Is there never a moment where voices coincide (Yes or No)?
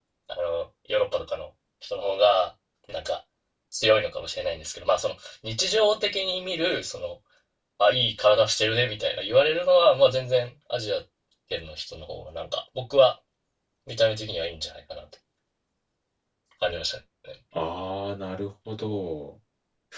Yes